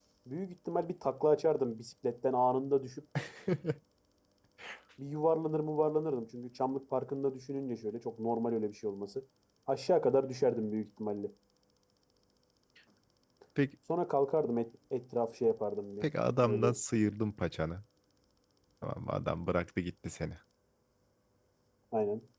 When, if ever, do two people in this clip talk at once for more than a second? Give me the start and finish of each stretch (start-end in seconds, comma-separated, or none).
none